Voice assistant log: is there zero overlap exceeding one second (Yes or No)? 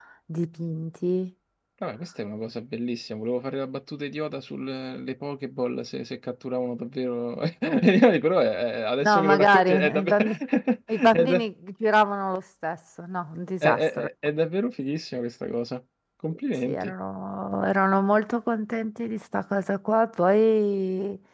No